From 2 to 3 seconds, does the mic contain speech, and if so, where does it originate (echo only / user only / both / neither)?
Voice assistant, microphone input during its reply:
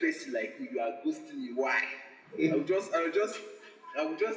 both